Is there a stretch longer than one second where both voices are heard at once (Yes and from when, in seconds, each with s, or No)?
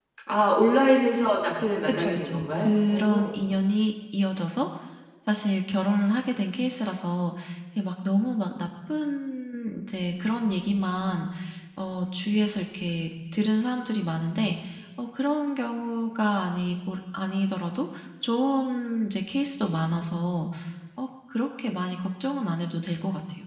Yes, from 1.9 s